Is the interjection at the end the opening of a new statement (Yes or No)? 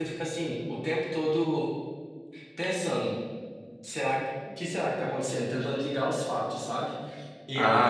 Yes